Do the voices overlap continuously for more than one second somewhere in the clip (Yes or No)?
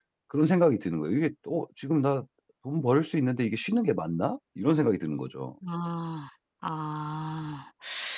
No